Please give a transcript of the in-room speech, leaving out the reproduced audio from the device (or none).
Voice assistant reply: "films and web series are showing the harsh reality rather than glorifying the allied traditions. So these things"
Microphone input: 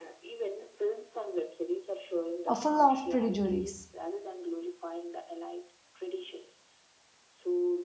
uh, full of prejudice.